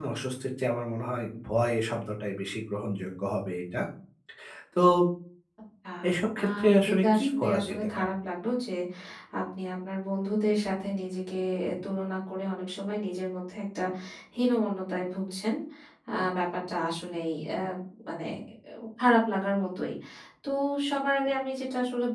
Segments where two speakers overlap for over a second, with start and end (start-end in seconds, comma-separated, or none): 6.4-8.1